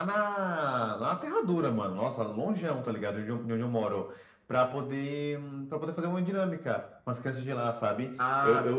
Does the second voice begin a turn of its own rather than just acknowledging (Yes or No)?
Yes